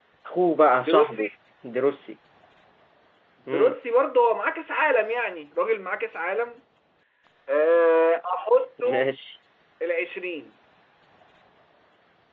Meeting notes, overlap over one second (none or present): none